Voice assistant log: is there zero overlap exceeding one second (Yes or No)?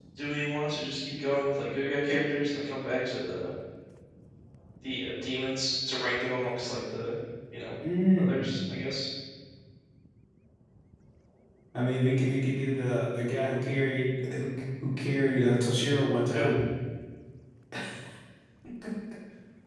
Yes